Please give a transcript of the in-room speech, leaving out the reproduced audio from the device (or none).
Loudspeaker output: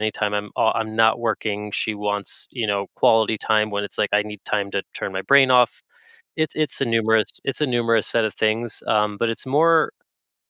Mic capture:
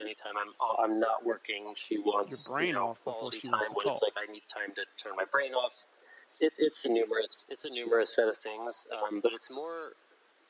your brain off before she wants to call.